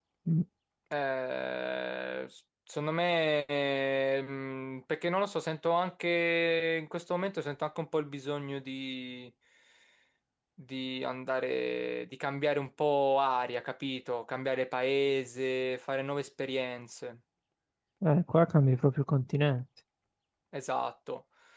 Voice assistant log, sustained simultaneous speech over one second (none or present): none